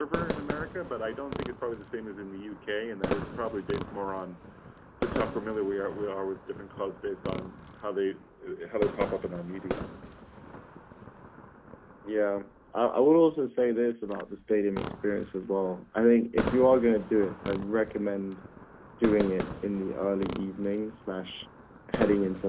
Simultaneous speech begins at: none

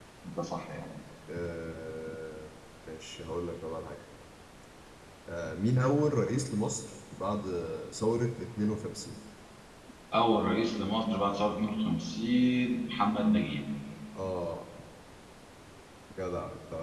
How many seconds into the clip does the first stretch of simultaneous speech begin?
none

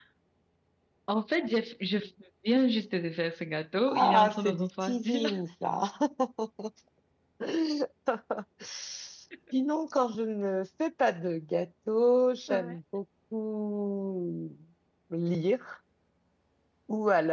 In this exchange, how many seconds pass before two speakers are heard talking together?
3.9 s

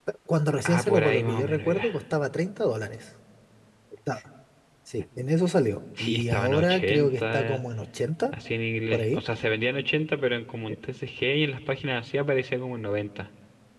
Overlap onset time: 0.6 s

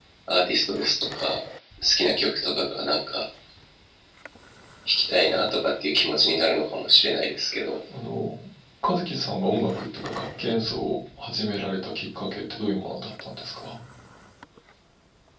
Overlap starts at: none

